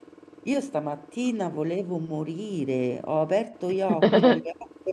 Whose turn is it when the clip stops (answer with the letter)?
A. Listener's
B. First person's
B